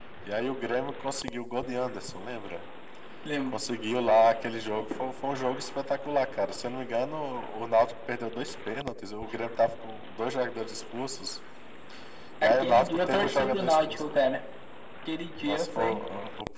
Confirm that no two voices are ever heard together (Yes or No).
No